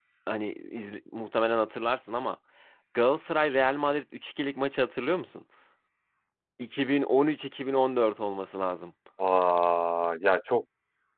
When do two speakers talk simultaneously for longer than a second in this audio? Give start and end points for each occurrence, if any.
none

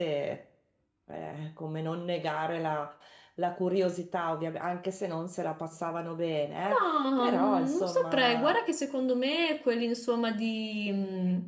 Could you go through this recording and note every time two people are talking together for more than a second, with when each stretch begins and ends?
6.8-8.6

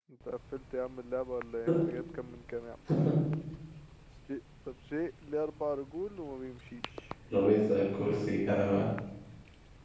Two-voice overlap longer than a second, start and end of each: none

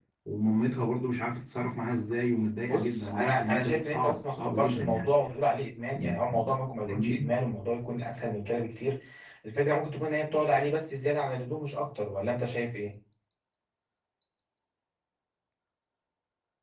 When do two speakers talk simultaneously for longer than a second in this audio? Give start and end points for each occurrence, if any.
2.7-5.1

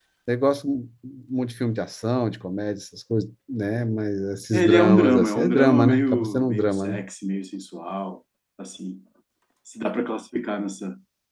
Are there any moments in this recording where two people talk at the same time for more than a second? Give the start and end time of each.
4.5-7.0

